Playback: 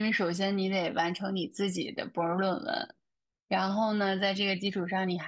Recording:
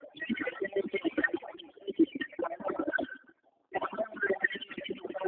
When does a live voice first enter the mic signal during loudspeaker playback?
none

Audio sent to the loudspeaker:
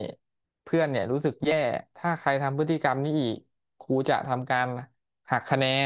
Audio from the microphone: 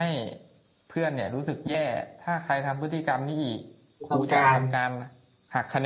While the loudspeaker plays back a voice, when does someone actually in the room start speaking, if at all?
4 s

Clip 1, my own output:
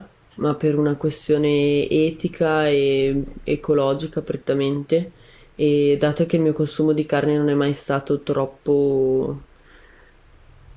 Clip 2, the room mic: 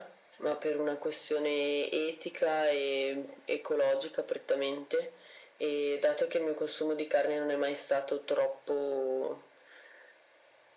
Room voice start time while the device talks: none

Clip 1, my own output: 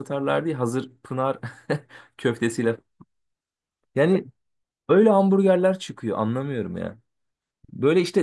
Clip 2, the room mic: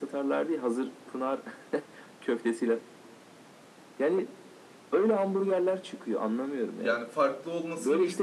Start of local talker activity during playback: 7 s

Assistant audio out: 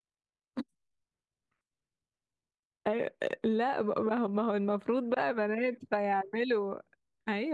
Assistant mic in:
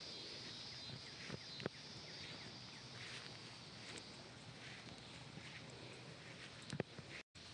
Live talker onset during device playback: none

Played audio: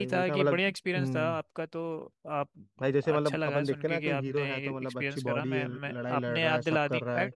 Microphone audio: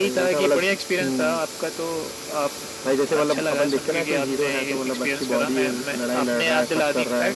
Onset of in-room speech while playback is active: none

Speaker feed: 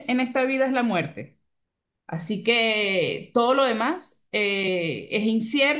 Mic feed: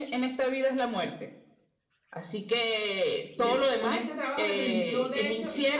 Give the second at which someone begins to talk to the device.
3 s

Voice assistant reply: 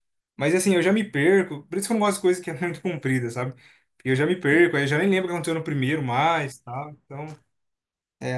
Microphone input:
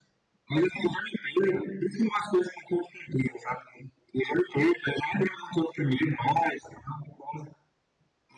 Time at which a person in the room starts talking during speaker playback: none

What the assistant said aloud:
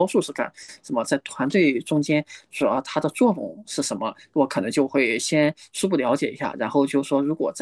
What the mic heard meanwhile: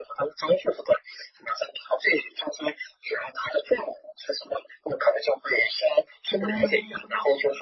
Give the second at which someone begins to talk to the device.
6 s

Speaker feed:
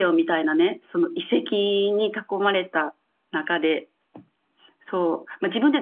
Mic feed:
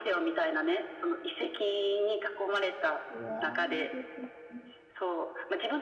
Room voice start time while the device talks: 3 s

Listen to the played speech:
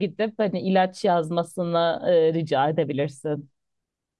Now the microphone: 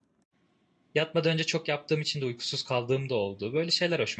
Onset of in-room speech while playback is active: 1 s

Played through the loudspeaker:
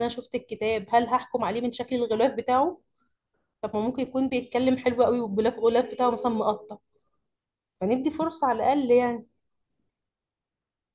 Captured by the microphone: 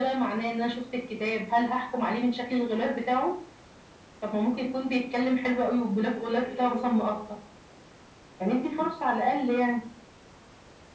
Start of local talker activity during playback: none

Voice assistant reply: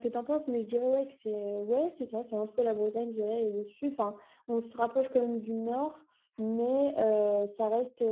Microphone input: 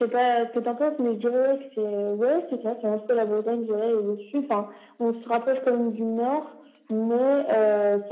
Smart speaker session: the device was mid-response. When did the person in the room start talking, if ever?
none

